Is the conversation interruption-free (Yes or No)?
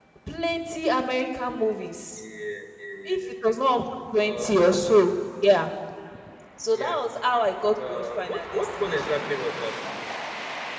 No